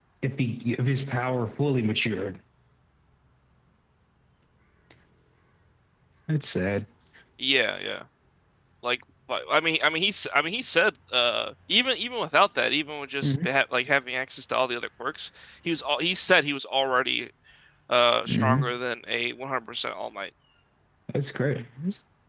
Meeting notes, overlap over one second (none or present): none